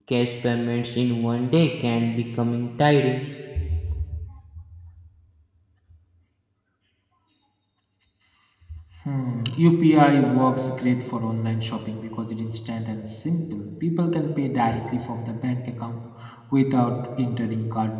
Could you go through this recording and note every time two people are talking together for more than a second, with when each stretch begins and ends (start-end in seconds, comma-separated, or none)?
none